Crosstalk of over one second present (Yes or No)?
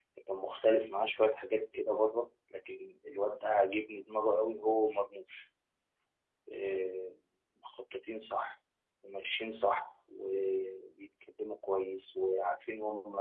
No